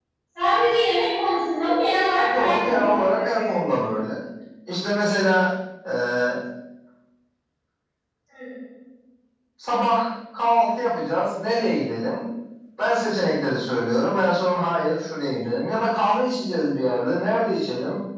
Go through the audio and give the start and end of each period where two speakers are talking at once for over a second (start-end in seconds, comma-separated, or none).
2.4-3.7